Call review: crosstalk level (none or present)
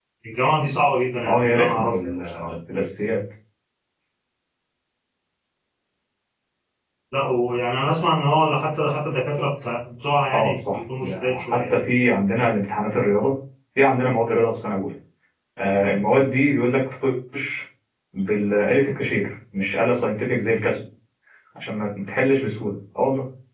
present